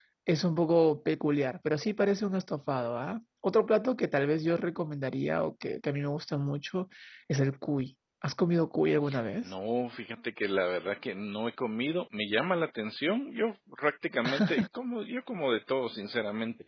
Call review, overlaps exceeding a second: none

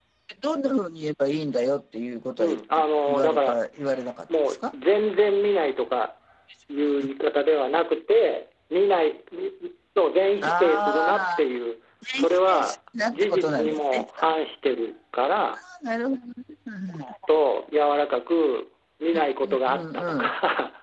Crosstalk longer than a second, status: present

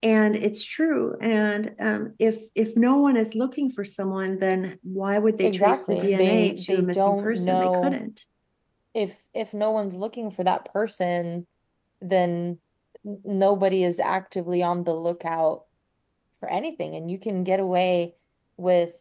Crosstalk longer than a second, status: present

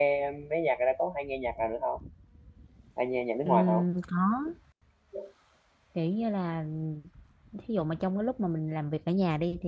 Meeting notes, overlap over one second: none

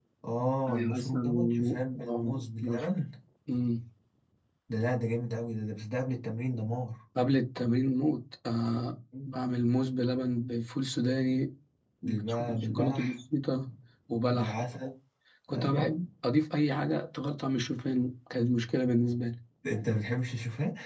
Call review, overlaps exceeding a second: present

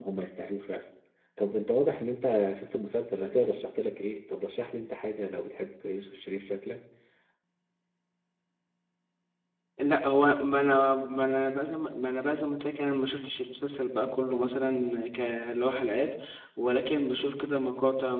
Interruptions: none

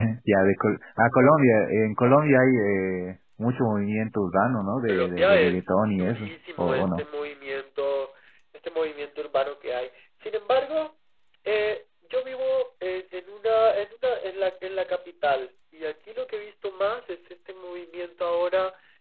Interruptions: present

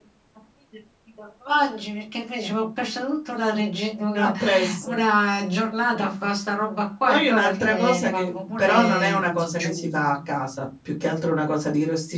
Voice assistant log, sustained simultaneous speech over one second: present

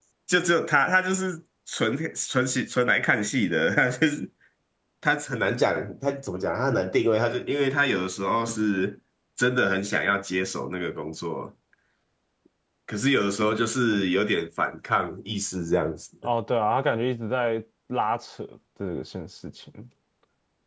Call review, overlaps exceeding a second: none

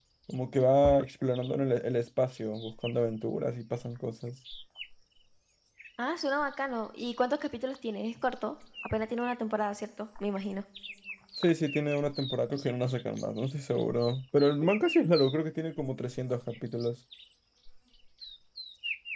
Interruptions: none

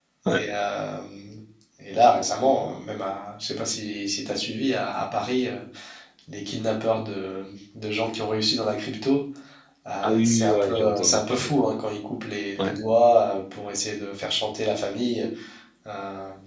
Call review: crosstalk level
present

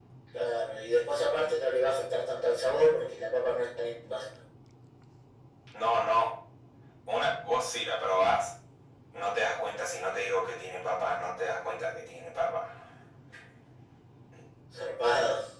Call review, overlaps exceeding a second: none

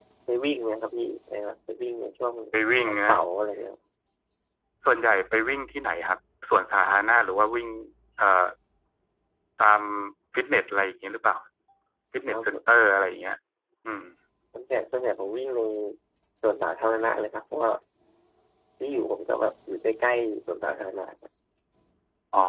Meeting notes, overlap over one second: none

